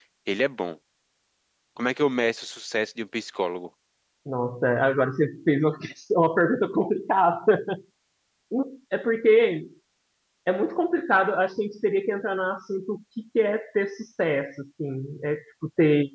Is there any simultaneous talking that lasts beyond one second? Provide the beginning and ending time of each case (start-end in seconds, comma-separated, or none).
none